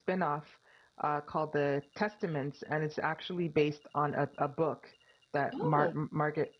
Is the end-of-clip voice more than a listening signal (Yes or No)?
No